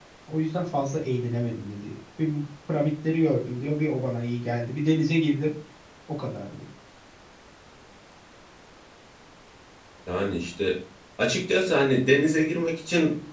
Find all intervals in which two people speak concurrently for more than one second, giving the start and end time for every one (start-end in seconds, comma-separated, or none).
none